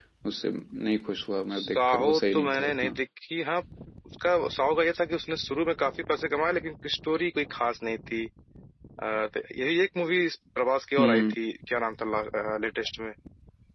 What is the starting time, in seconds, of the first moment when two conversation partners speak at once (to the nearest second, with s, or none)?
2 s